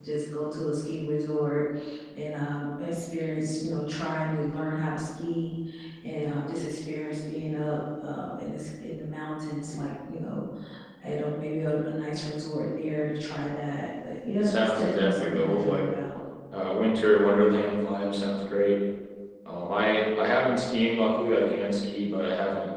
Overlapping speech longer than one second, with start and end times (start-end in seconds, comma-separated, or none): 14.4-15.8